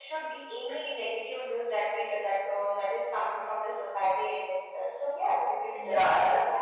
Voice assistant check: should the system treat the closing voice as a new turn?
No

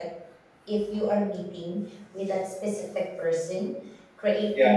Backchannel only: Yes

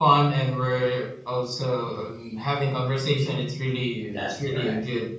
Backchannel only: Yes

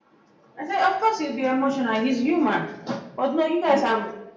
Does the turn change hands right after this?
No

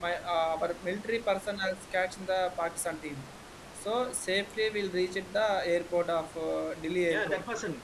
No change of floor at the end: No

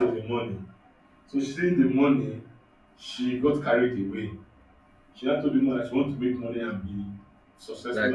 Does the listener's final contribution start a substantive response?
No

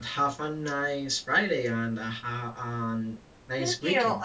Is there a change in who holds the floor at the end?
Yes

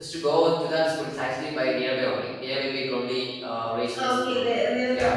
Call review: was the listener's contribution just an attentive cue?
No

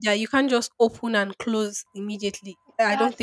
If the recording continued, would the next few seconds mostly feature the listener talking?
Yes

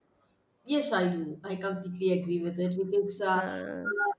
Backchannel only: Yes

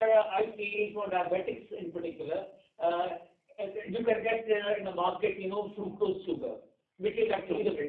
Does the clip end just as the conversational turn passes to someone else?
No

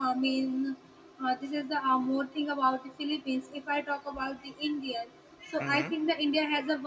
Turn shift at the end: No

